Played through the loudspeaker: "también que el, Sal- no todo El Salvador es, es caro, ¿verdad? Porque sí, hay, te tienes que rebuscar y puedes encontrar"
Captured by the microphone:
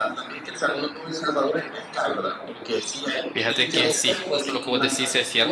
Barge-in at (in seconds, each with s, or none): 3.3 s